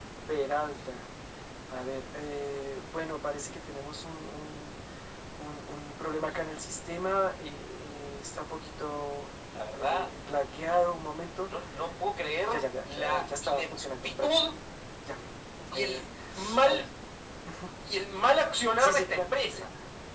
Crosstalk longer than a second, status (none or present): present